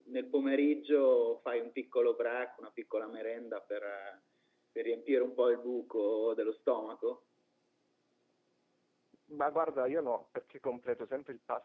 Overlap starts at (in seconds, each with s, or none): none